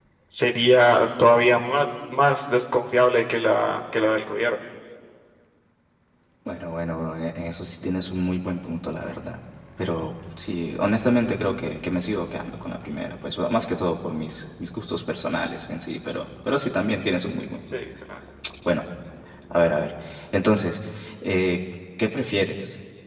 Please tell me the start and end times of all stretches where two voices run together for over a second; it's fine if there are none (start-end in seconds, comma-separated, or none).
none